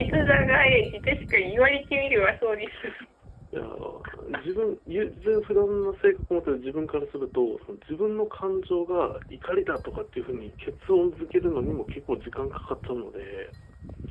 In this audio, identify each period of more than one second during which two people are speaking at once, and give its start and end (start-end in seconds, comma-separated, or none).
none